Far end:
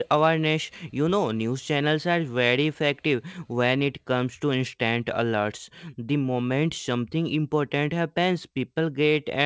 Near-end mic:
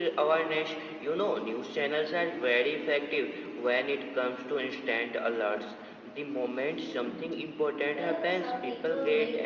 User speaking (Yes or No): Yes